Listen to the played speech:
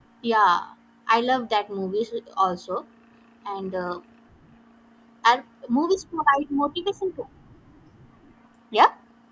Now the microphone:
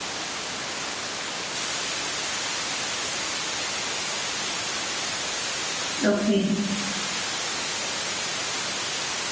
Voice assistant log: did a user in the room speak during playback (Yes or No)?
Yes